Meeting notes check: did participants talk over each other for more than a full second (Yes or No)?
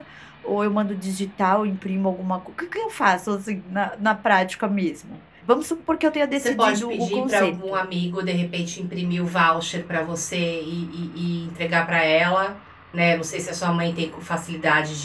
Yes